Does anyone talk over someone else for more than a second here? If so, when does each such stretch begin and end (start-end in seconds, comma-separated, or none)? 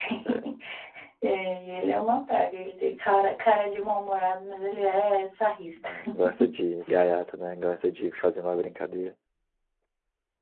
none